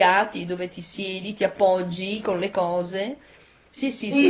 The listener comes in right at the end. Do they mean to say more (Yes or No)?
Yes